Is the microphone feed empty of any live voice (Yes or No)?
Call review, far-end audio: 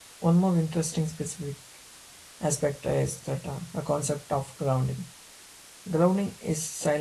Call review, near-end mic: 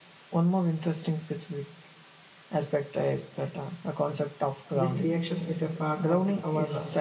No